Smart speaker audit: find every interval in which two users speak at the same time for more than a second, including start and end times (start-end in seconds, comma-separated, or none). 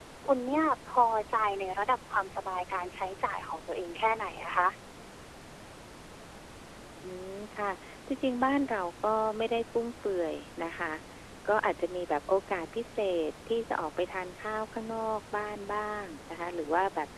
none